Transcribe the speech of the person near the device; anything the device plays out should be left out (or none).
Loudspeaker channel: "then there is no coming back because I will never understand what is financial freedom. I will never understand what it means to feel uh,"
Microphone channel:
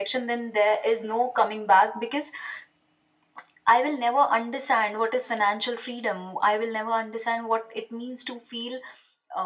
none